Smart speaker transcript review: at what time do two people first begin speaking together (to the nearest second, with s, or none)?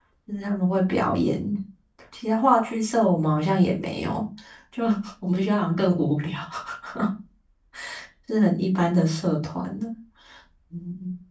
none